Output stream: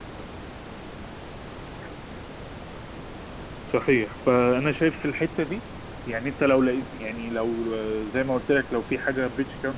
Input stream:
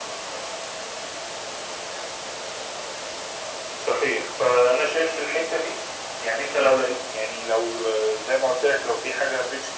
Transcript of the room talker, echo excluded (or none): none